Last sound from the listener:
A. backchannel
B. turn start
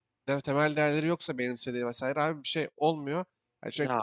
A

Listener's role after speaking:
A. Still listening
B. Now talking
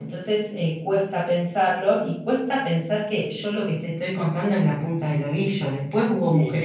A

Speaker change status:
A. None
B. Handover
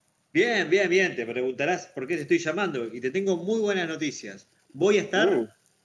A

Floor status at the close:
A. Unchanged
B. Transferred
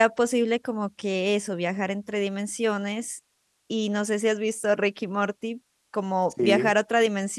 A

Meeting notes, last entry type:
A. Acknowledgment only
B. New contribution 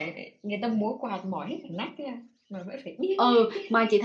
B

